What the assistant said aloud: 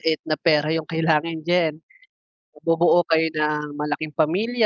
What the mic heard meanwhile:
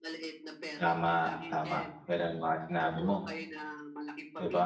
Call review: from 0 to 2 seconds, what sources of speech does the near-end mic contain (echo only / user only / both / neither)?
both